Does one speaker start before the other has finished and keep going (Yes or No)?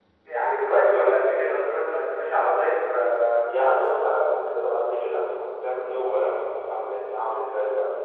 No